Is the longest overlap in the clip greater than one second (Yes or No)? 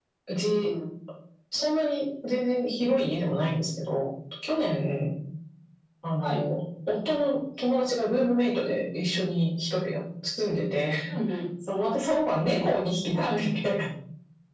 No